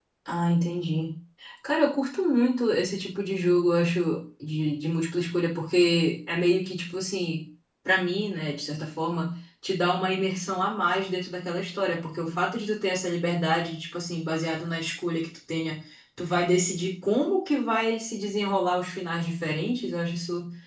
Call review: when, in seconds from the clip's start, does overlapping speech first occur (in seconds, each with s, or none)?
none